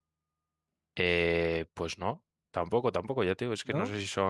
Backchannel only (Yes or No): Yes